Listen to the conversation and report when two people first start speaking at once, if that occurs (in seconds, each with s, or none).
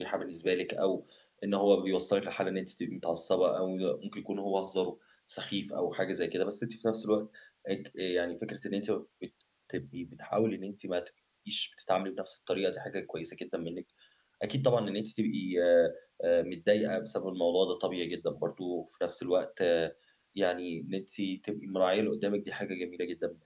none